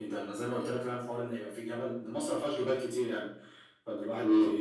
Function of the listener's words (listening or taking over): listening